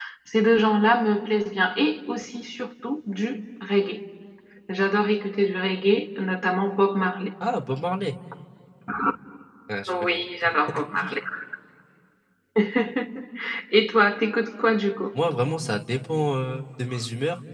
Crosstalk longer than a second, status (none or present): none